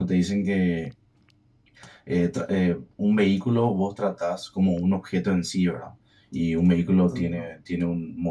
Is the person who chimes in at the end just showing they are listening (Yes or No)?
Yes